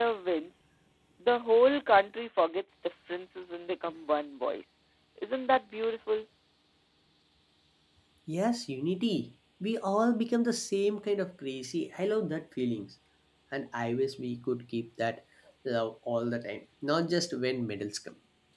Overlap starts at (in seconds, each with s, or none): none